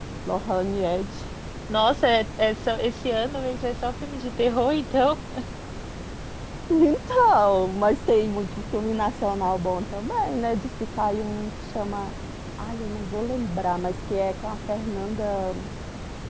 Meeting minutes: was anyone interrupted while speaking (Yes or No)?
No